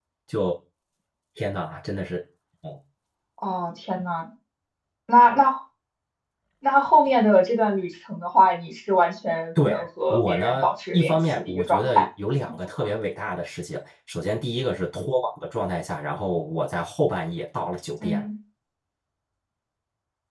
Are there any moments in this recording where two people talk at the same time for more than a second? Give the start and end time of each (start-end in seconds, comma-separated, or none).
9.6-12.1